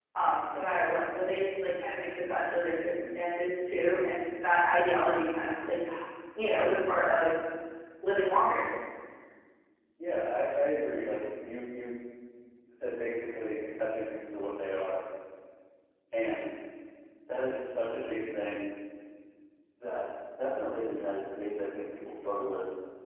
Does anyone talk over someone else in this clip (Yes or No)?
No